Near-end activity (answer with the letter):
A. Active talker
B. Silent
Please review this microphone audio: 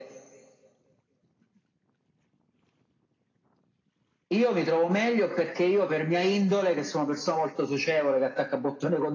B